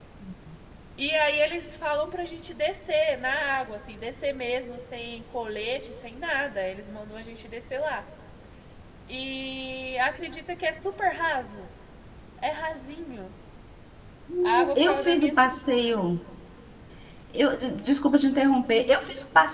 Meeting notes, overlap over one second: present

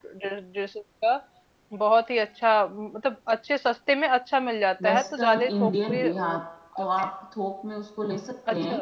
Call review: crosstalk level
present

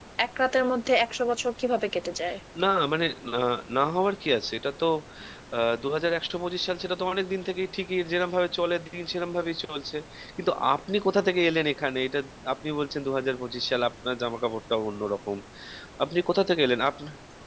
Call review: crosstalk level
none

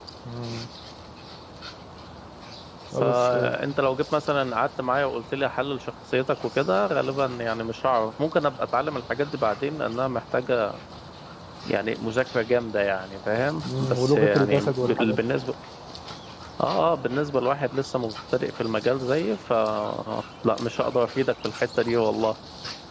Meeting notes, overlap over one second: present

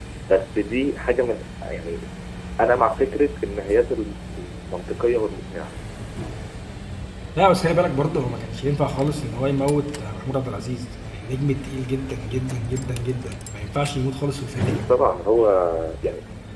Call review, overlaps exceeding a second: none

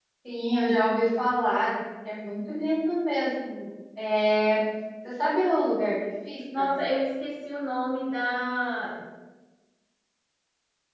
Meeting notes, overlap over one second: none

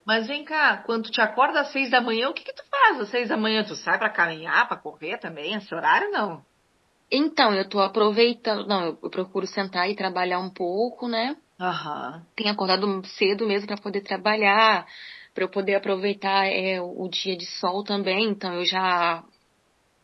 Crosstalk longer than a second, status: none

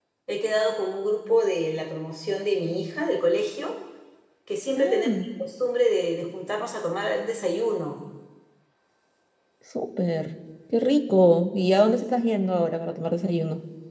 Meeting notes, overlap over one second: none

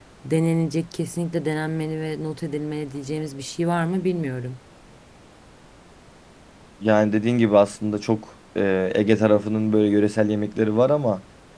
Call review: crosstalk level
none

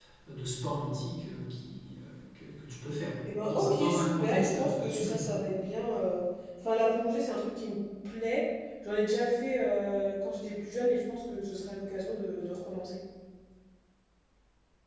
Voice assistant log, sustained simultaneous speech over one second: present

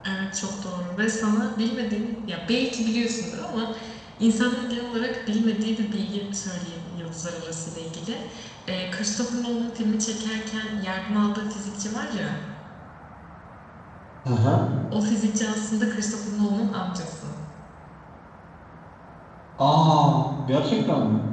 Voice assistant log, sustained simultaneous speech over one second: none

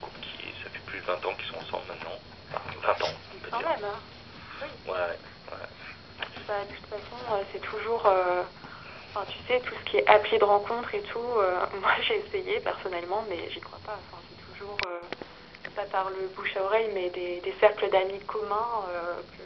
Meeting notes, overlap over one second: none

